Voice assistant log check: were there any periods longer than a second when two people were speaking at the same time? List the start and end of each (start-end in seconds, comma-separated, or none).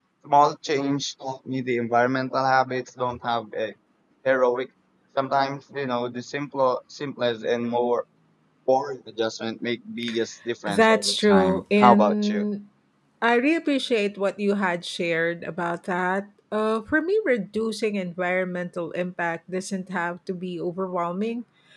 10.7-12.4